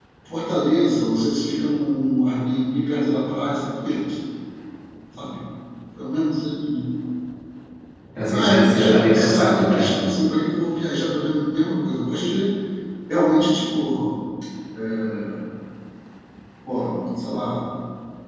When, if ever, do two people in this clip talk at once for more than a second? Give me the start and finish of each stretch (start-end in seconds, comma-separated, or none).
8.3-10.0